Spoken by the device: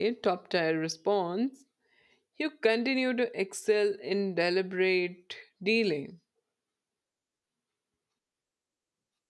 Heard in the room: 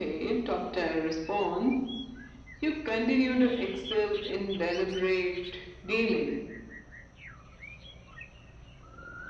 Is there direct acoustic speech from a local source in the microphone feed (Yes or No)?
No